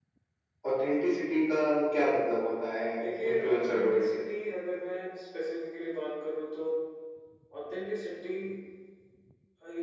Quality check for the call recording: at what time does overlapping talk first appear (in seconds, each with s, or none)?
3.0 s